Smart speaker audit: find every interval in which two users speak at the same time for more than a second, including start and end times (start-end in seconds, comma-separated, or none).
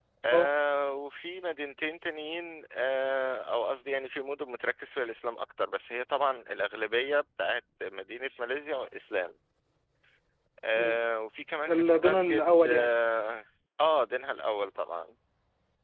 11.7-12.9